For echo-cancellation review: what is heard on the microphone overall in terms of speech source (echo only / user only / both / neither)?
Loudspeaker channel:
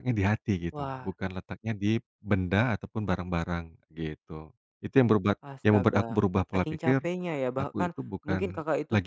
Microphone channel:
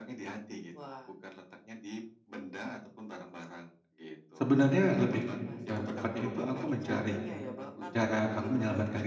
both